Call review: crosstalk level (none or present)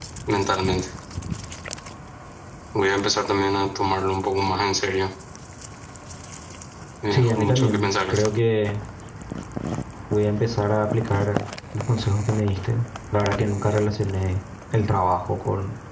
present